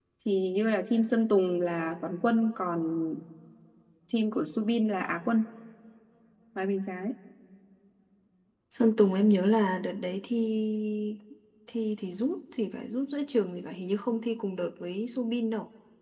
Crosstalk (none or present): none